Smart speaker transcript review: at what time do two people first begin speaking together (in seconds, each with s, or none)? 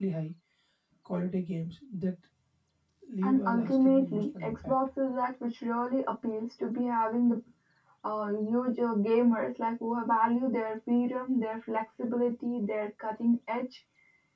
3.2 s